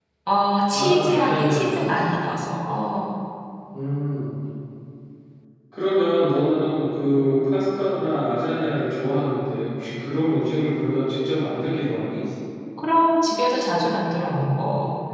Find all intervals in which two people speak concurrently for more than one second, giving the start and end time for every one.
0.7-2.1

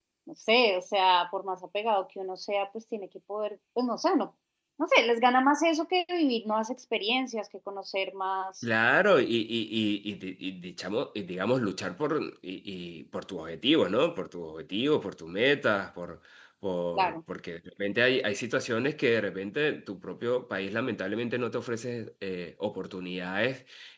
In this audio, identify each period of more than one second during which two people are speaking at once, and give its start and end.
none

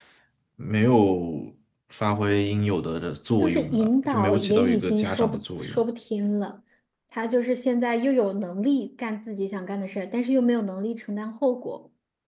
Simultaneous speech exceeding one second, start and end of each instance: 3.4-5.8

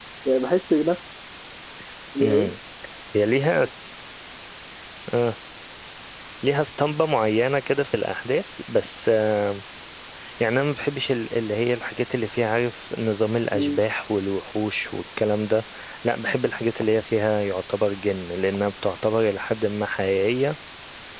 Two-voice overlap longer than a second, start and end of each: none

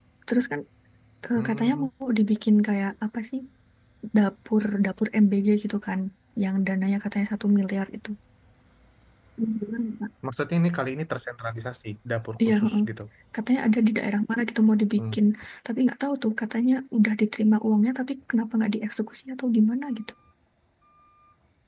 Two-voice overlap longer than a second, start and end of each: none

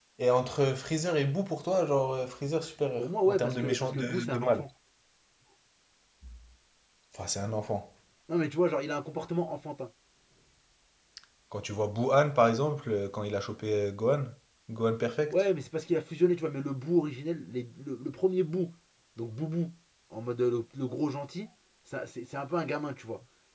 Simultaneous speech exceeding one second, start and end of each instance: 3.0-4.6

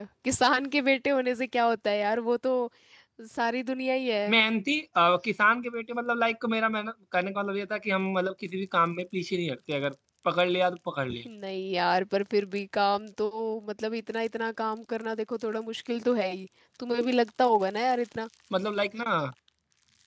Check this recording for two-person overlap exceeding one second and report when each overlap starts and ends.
none

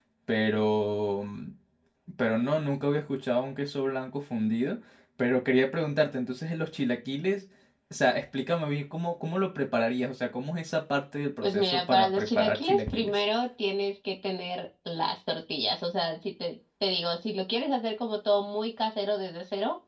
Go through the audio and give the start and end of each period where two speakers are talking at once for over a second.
11.4-13.1

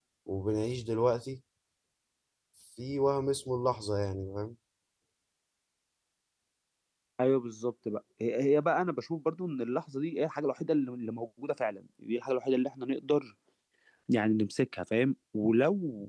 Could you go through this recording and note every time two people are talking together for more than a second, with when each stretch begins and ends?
none

